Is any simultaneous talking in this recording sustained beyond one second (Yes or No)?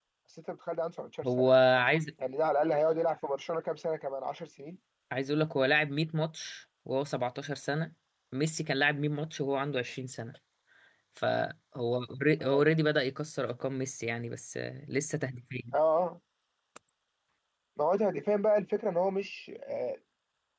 No